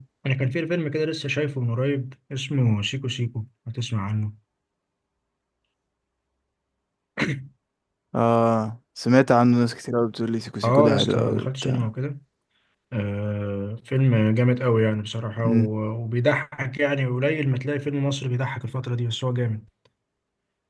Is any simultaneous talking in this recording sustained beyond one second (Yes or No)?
Yes